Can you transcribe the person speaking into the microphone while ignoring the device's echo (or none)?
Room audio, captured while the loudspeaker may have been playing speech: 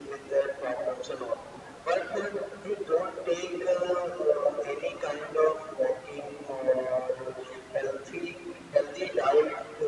none